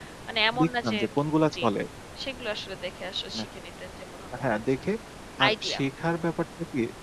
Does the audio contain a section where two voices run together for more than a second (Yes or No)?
No